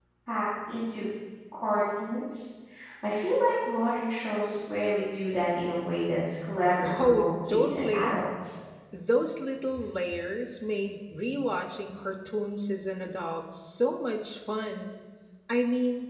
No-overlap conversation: No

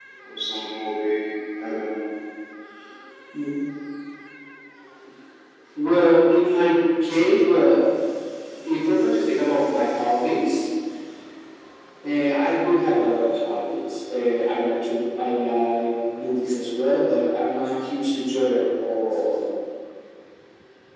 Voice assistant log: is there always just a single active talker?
Yes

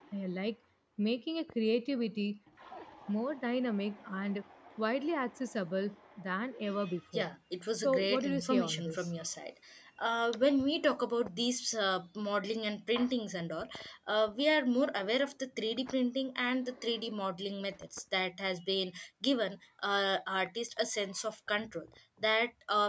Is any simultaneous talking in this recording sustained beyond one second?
Yes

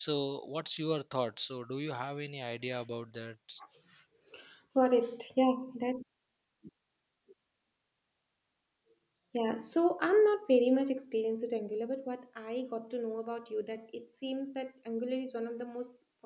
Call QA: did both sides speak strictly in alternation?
Yes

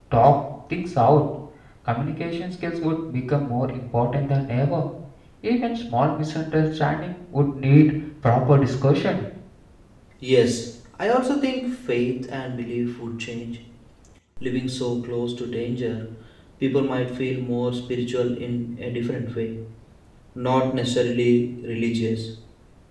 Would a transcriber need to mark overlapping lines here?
No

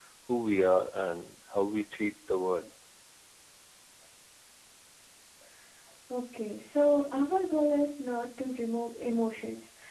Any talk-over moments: No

